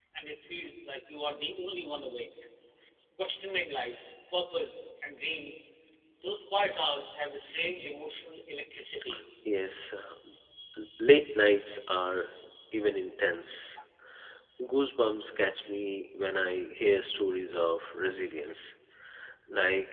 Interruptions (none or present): none